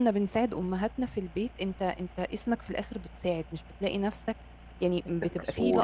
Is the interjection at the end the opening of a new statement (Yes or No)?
No